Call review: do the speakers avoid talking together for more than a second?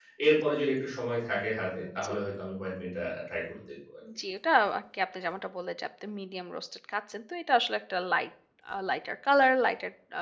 Yes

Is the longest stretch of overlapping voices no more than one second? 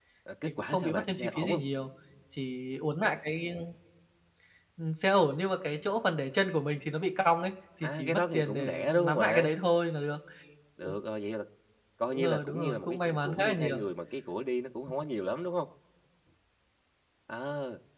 No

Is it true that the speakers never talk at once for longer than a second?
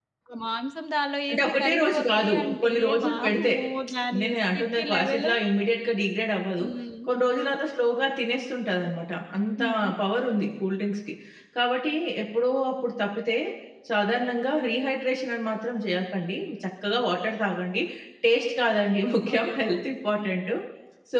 No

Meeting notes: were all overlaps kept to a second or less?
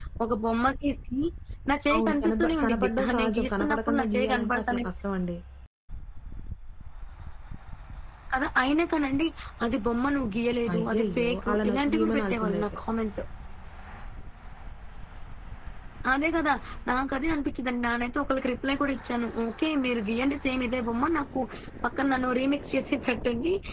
No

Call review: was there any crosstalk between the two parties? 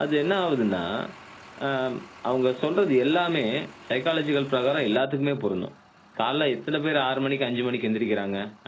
No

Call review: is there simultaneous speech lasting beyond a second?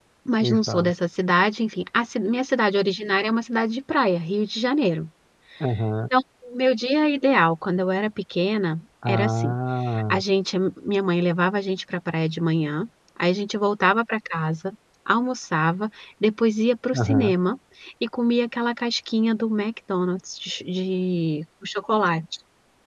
No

